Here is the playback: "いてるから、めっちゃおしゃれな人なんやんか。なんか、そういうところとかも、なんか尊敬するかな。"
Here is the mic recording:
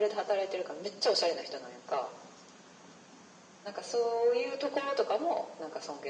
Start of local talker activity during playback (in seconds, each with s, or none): none